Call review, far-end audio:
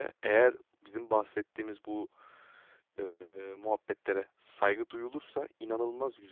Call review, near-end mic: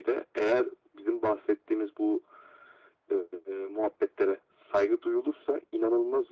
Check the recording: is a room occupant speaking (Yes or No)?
No